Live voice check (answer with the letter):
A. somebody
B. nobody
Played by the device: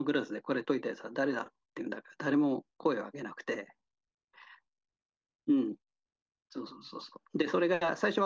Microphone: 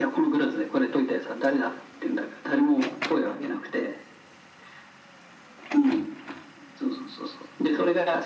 B